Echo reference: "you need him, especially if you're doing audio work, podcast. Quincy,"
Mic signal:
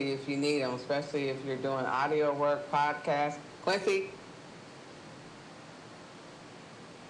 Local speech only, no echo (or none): none